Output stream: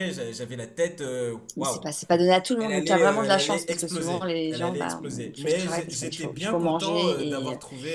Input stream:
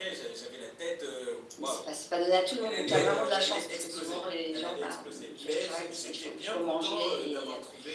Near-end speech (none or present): present